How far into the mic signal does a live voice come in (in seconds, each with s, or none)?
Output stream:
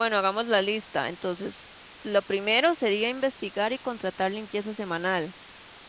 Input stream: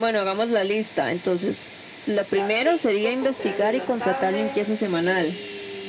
2.3 s